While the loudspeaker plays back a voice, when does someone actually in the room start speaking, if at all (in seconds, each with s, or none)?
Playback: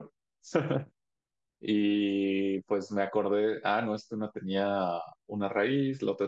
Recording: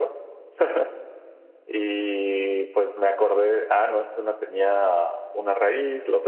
none